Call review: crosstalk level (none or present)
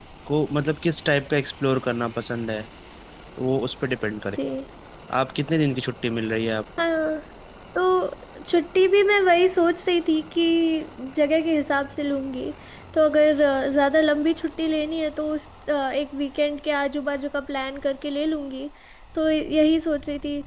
none